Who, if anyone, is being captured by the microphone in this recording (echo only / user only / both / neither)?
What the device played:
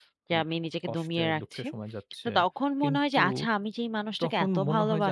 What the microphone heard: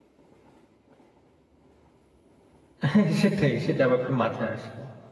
user only